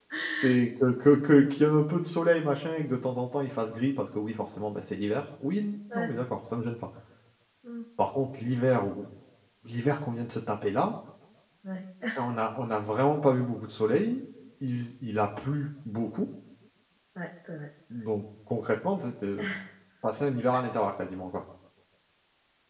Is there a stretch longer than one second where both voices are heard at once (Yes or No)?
No